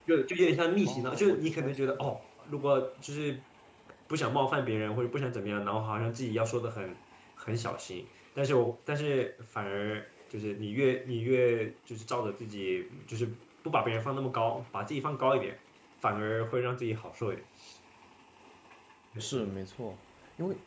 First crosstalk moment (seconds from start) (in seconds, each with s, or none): 0.8 s